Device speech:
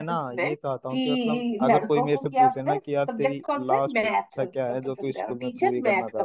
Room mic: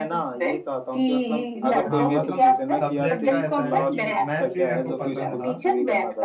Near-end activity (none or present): present